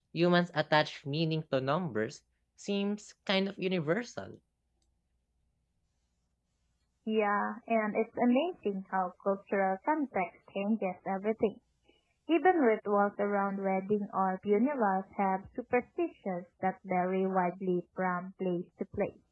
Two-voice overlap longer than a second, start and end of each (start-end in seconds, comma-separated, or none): none